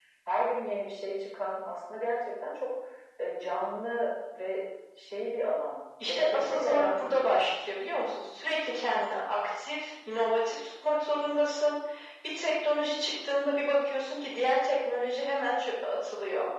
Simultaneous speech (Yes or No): Yes